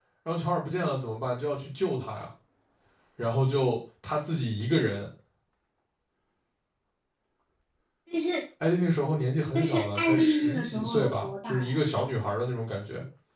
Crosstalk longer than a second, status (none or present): present